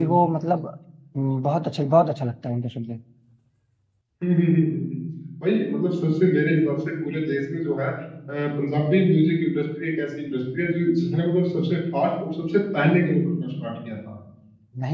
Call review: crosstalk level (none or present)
none